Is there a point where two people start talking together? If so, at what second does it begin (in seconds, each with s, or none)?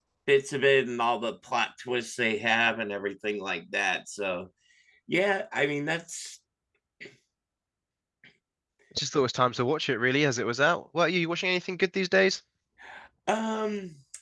none